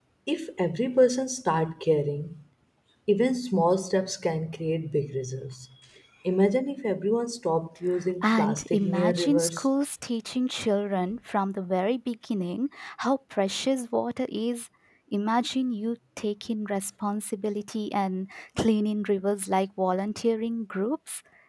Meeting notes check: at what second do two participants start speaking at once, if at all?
8 s

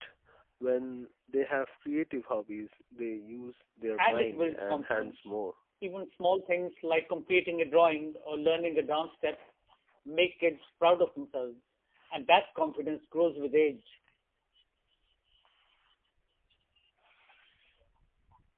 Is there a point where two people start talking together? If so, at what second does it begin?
4 s

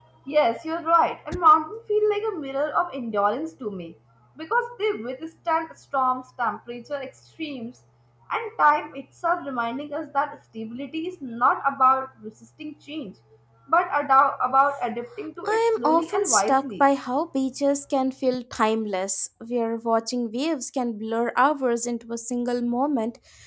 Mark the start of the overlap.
15 s

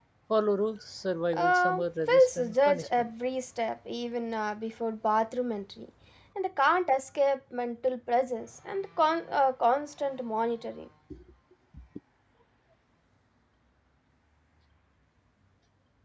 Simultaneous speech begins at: 1 s

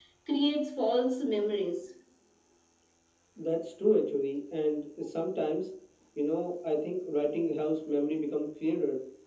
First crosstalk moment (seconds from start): none

